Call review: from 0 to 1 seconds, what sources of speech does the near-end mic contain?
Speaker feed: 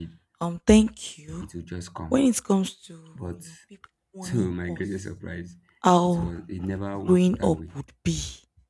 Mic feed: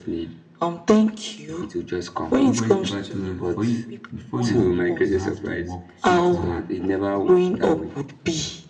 echo only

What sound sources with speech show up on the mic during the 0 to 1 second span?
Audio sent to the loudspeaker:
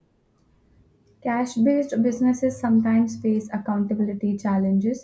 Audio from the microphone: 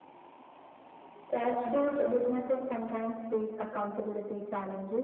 neither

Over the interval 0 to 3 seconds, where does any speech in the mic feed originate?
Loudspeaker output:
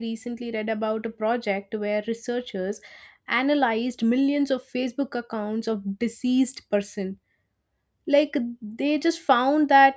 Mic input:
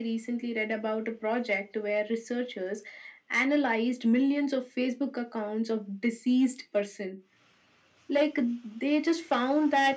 echo only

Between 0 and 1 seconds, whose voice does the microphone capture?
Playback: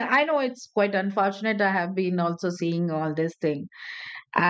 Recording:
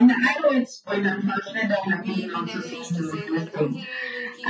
echo only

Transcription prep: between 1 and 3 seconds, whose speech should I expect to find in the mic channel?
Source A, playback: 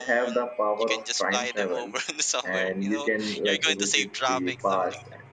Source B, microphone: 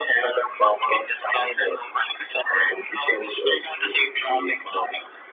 echo only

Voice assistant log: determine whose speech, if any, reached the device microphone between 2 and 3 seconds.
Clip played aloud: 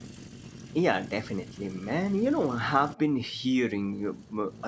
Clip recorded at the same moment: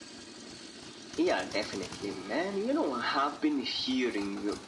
echo only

